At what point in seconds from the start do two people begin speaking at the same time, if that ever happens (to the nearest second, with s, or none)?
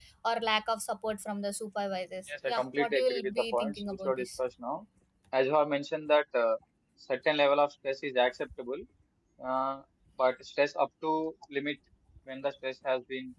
2 s